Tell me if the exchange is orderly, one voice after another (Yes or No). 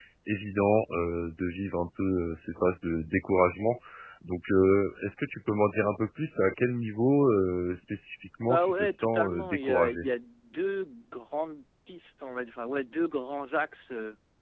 No